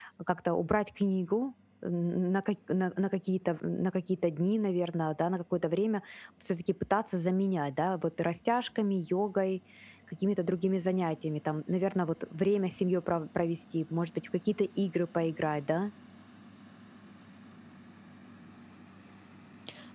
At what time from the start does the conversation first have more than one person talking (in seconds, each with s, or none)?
none